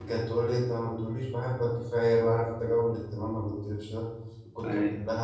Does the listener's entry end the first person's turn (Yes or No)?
No